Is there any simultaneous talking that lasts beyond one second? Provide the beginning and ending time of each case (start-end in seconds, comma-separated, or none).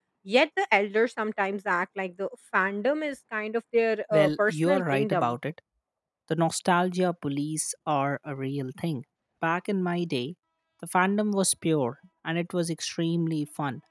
4.1-5.3